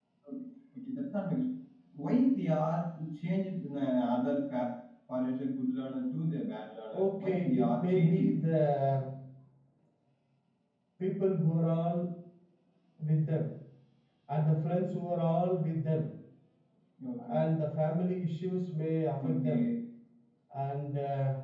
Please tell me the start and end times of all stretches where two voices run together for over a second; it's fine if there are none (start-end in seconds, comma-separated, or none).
6.9-8.3